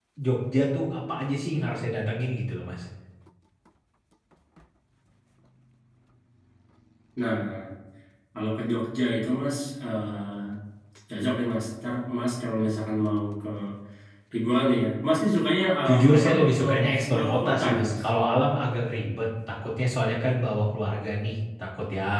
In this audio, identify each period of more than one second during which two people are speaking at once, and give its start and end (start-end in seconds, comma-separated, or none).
15.9-18.0